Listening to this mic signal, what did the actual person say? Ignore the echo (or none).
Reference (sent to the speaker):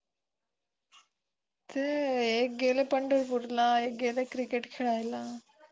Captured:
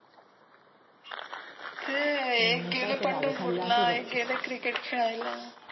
हं, ह, कायतर आग खाल्ला असल गपचप.